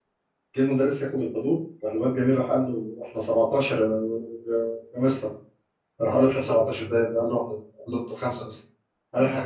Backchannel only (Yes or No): Yes